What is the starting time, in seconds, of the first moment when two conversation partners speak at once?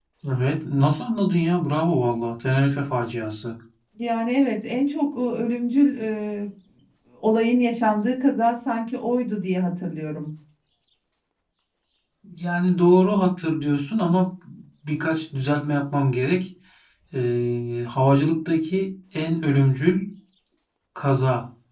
none

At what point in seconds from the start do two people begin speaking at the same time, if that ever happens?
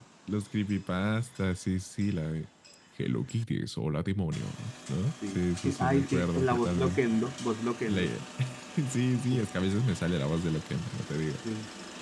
5.3 s

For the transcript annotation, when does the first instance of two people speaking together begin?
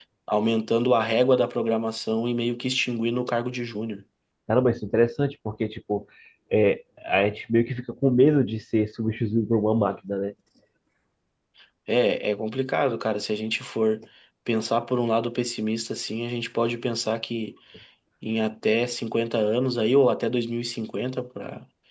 none

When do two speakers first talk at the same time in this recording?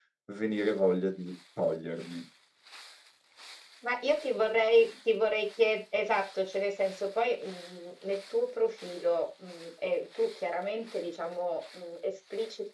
none

